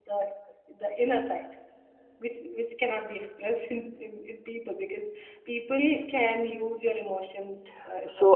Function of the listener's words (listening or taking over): taking over